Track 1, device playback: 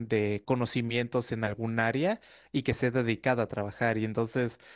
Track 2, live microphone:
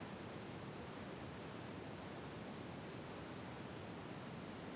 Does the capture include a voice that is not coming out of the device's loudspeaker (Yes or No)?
No